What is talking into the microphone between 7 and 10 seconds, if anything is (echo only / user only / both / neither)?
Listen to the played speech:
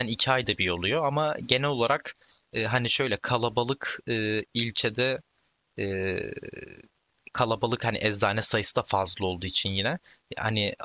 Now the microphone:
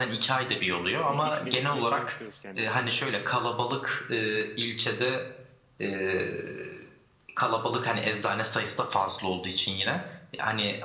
echo only